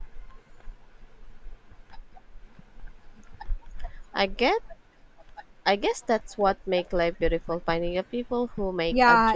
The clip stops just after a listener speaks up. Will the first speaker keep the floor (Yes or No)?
No